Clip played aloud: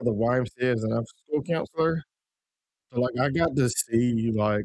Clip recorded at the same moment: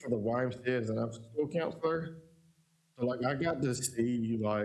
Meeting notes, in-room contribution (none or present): none